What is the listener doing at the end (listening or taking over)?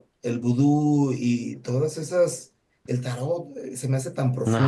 listening